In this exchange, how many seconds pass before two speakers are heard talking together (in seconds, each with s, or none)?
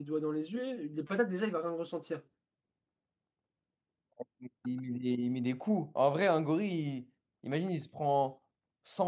none